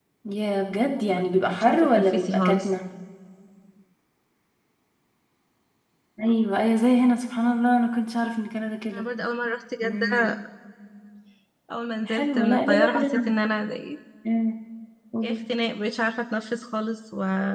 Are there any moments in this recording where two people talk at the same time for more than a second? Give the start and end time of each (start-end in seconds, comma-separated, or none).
1.1-2.7, 12.1-13.4